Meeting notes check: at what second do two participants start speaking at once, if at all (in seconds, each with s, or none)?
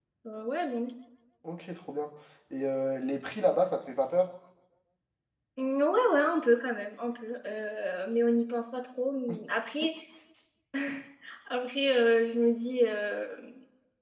none